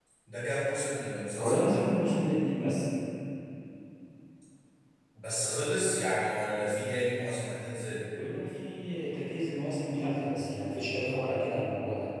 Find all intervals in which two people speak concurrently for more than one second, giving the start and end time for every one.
none

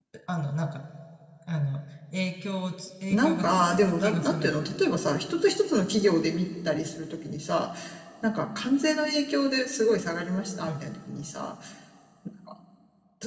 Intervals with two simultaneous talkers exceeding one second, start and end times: 3.1-4.8

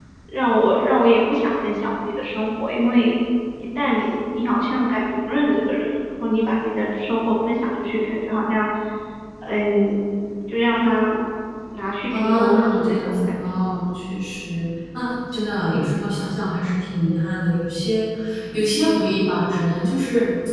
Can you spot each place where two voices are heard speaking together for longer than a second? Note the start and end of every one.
12.1-13.3

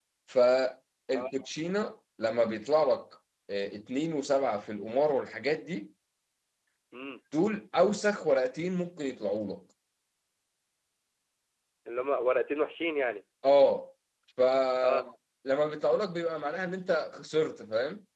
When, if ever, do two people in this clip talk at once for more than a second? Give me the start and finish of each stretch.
none

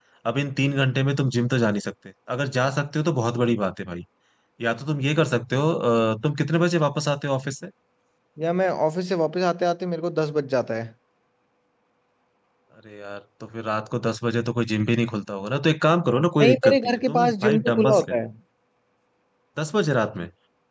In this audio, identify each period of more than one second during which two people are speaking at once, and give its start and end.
16.4-18.2

